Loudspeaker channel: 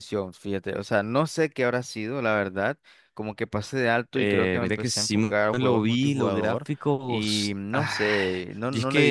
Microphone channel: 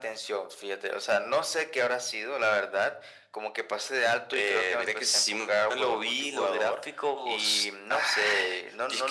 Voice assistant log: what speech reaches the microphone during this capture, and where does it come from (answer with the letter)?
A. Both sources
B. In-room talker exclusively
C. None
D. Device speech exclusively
D